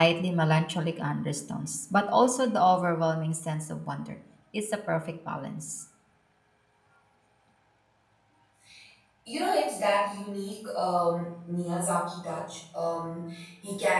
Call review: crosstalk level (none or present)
none